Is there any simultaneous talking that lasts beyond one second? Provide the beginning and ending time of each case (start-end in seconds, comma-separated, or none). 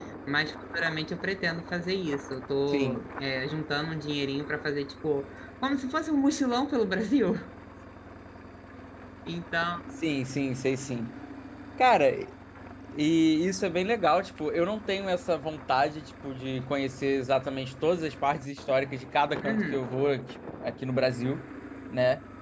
none